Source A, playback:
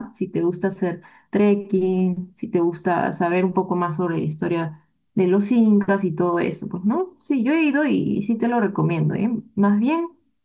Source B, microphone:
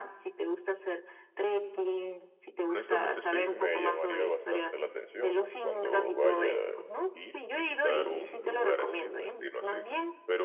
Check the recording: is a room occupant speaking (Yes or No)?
Yes